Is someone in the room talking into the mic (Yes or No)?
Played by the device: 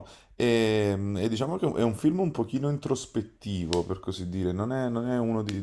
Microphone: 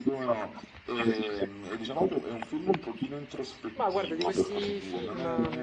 Yes